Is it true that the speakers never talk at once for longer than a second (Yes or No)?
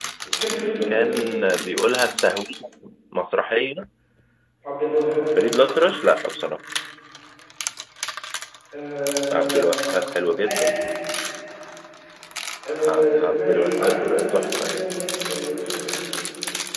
No